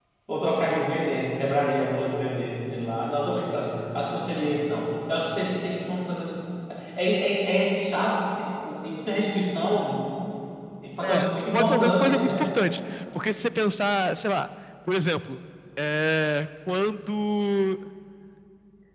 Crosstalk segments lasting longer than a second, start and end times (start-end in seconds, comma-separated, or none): 11.0-12.5